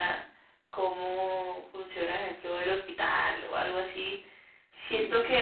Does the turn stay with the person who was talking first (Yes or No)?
Yes